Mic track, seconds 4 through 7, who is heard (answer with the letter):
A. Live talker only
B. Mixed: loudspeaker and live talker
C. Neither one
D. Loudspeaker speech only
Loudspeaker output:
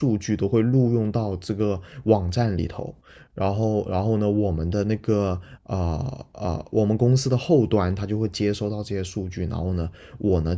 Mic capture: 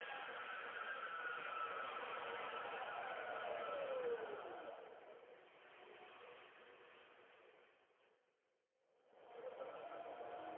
C